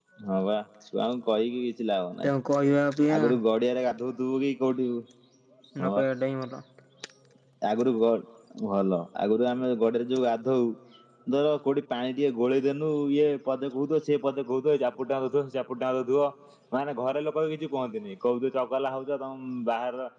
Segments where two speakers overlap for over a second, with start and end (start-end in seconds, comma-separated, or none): none